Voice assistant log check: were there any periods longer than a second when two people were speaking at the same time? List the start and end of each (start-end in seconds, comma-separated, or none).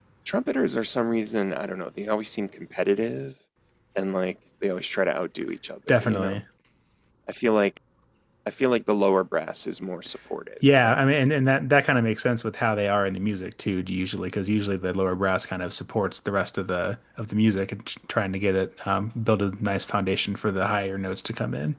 none